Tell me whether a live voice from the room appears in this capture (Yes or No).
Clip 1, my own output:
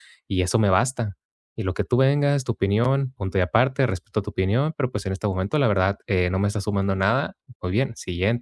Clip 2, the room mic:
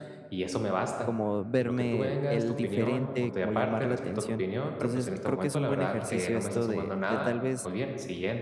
Yes